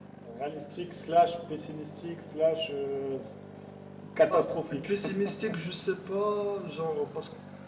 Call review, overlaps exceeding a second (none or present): none